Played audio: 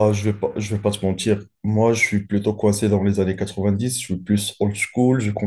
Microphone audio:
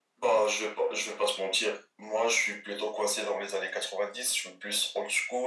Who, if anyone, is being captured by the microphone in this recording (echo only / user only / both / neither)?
echo only